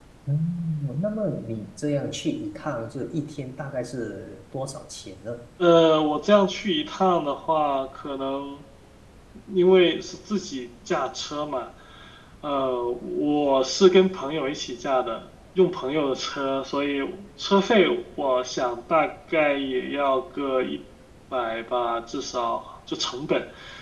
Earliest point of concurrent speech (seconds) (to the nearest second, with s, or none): none